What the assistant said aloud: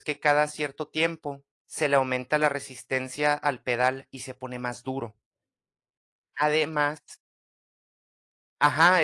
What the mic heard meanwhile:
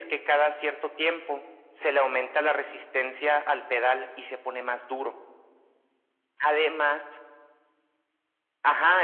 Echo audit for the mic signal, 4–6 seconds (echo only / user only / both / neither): echo only